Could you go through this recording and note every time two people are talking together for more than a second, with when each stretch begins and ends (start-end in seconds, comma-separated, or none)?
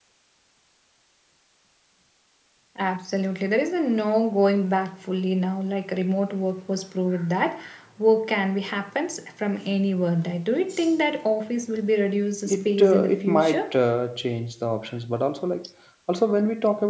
12.4-13.7